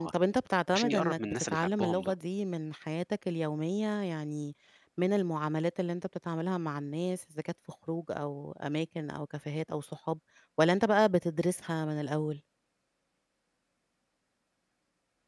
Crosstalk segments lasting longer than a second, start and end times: 0.7-2.1

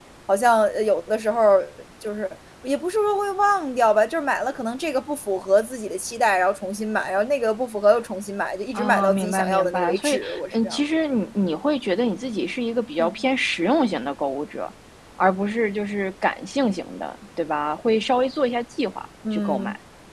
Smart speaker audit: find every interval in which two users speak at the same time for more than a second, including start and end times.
8.8-10.8

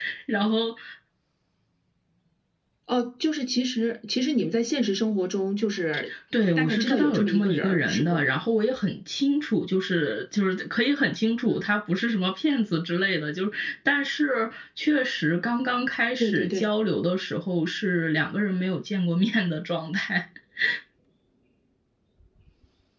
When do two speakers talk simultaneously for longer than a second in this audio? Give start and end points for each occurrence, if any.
6.4-8.2

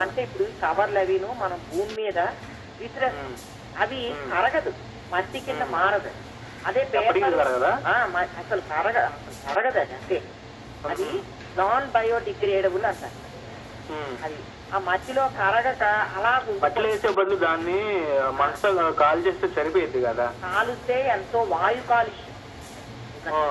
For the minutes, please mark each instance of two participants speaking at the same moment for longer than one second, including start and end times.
none

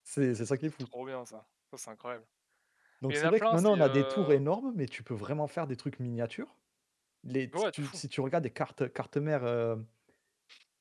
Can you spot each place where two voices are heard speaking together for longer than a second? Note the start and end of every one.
3.1-4.3

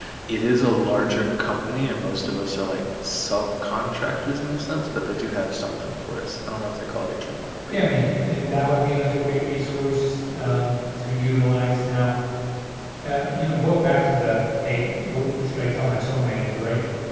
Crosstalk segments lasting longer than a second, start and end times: none

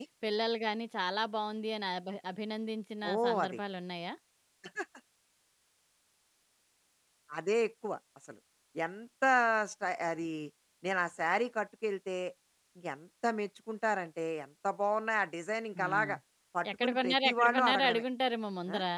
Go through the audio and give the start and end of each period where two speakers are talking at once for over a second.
16.8-18.0

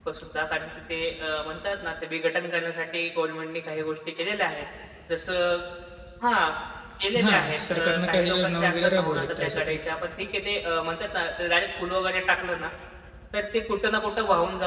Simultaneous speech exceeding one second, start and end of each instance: 7.2-9.8

